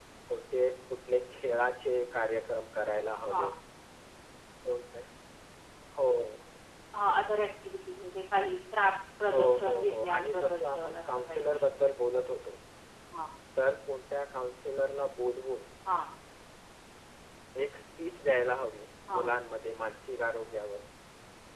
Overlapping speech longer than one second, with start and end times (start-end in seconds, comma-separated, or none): 9.3-11.7